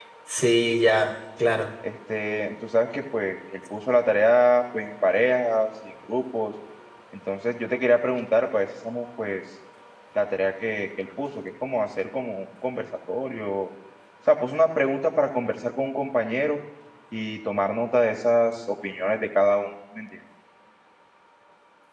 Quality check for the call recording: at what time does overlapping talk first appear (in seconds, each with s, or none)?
none